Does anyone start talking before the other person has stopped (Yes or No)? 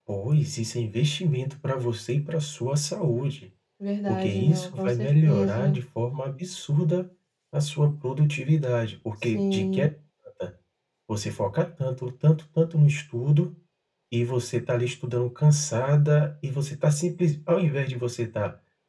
Yes